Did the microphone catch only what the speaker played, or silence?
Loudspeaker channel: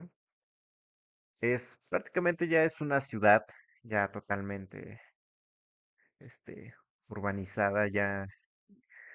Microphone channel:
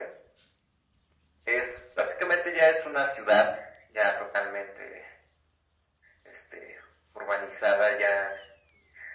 Yes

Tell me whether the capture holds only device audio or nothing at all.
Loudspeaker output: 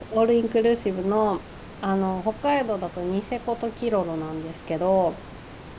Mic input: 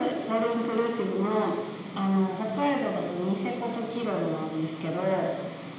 Yes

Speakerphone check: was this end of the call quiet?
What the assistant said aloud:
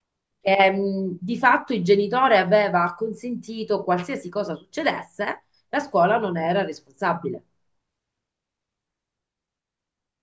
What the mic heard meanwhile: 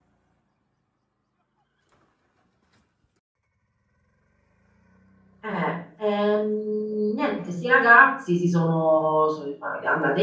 No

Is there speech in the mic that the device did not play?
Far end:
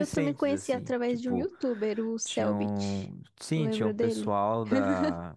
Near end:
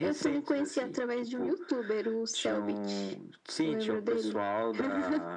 No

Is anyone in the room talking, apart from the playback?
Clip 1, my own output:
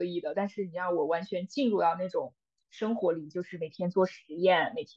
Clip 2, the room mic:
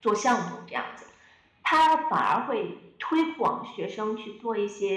Yes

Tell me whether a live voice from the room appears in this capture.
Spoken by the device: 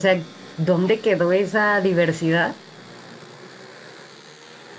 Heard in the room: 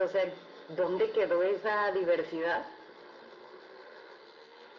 No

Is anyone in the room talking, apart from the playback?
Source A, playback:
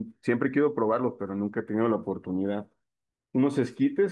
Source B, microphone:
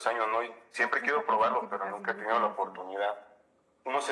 Yes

